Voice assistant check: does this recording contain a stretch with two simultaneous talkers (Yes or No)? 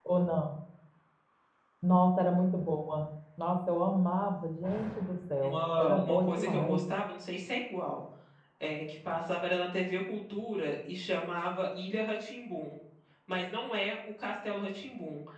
Yes